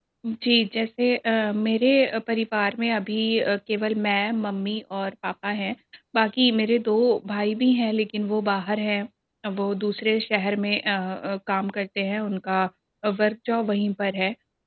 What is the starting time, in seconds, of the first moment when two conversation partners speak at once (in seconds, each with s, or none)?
none